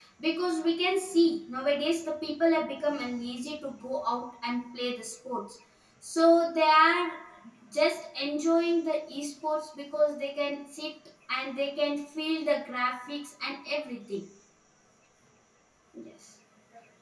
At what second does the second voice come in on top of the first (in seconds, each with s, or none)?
none